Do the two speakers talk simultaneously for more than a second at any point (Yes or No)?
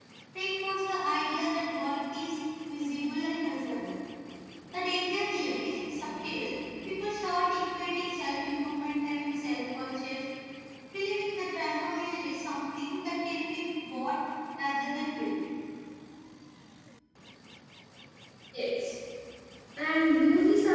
No